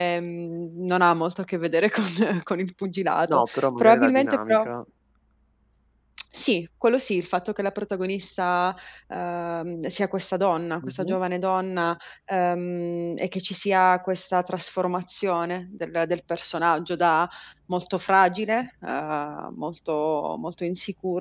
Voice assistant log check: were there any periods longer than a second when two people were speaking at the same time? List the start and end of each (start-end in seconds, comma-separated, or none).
3.3-4.6